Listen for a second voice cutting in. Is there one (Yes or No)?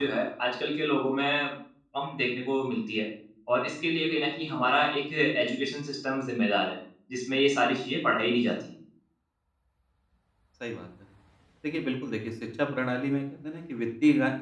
No